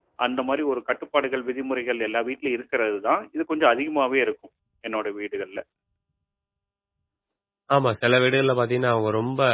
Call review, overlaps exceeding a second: none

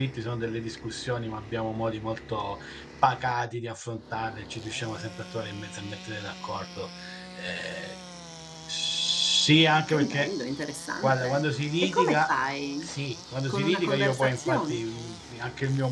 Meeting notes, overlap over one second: present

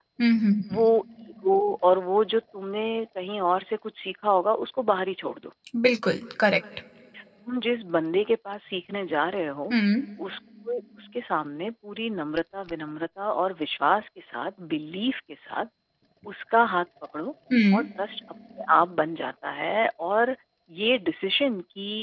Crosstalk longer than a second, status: none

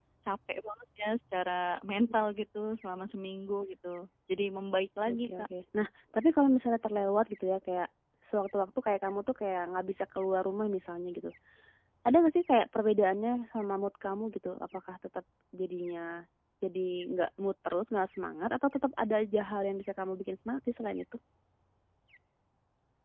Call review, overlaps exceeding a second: none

